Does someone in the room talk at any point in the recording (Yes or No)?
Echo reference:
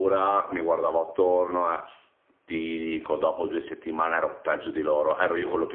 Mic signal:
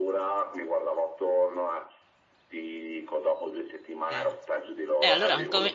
Yes